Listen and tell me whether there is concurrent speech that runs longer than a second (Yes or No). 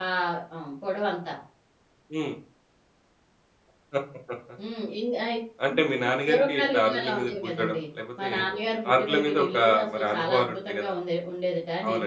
Yes